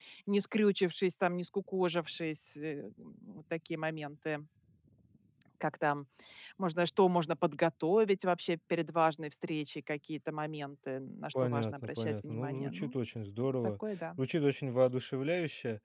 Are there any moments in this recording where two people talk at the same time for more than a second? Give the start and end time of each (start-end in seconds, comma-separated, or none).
11.4-12.9